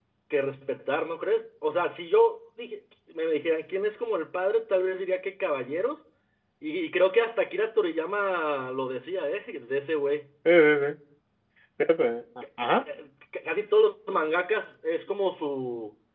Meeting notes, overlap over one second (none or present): none